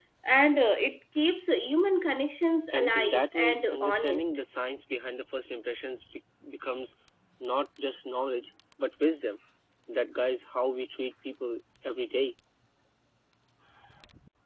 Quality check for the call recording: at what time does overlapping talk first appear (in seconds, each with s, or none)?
2.7 s